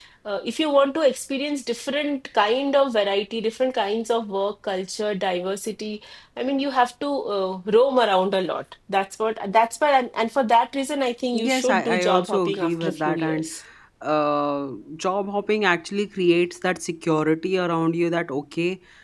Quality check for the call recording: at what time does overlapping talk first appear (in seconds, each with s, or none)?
11.3 s